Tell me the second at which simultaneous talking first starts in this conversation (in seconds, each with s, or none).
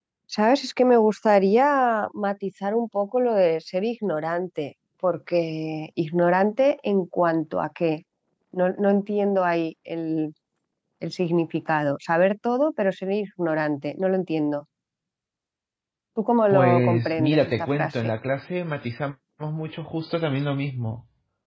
16.5 s